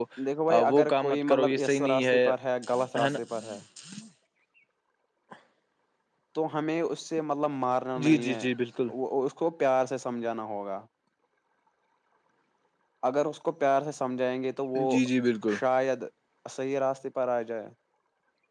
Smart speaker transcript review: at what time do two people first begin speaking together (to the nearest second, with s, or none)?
1 s